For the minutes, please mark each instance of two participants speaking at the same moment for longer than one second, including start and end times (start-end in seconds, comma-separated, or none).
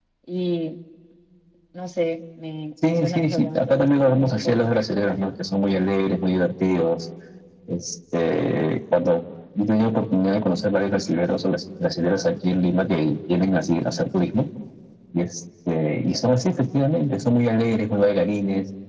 2.9-4.7